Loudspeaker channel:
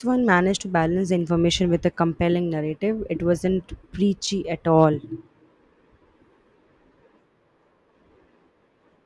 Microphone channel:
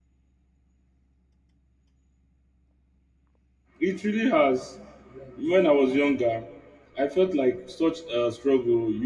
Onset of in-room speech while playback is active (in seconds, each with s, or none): 3.8 s